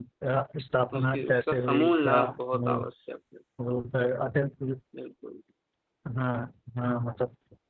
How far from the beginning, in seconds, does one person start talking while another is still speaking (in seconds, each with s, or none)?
1.0 s